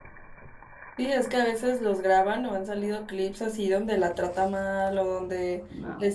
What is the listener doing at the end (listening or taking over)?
listening